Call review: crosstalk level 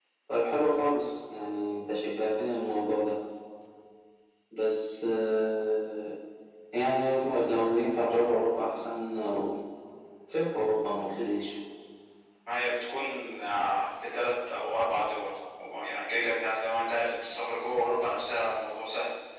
none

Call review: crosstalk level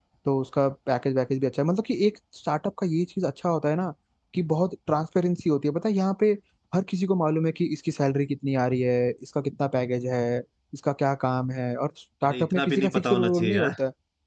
present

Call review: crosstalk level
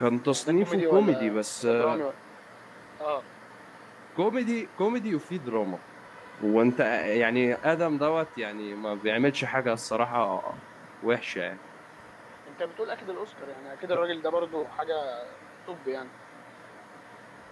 present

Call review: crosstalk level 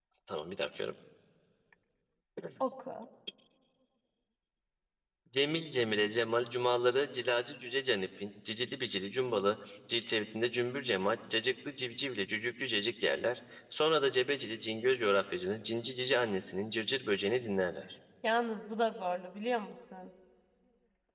none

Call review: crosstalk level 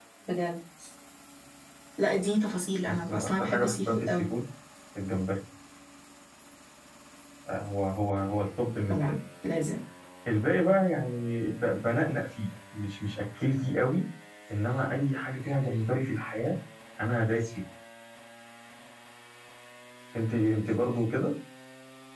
present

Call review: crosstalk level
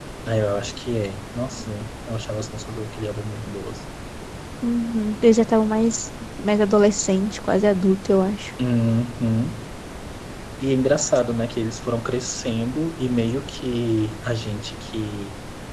none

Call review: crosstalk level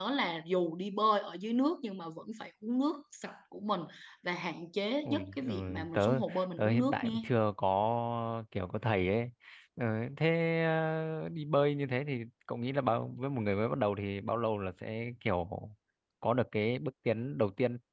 present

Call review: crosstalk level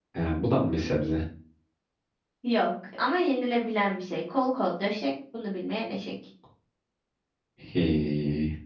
none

